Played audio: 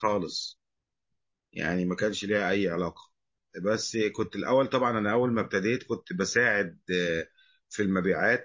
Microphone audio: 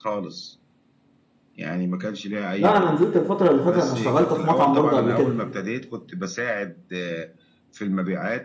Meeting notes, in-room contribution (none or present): present